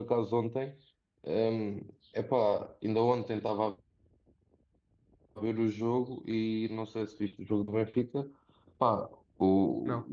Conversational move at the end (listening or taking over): listening